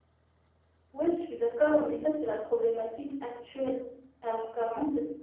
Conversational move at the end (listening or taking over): listening